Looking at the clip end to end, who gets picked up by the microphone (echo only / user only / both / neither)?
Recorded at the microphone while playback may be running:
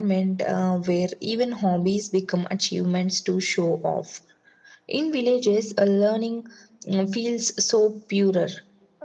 echo only